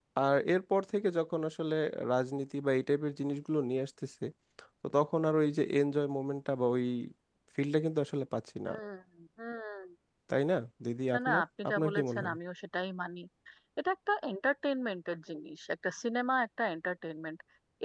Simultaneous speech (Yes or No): Yes